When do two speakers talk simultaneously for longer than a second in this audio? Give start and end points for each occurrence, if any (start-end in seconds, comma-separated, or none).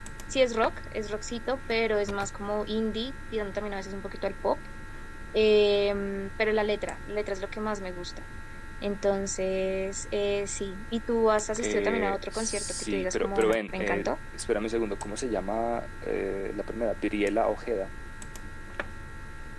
11.6-14.1